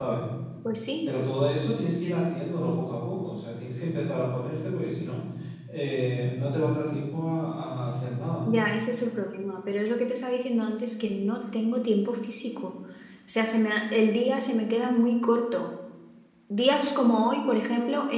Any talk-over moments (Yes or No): No